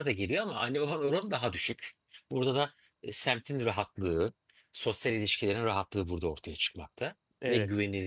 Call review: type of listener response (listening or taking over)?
listening